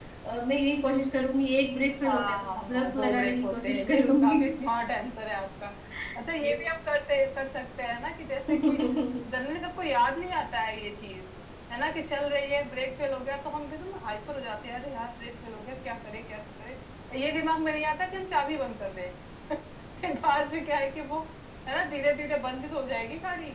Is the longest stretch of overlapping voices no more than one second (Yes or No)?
No